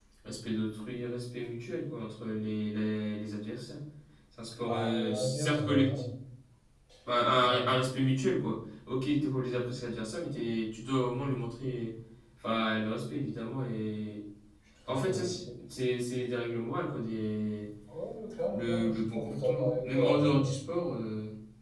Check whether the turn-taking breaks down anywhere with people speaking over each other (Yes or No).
Yes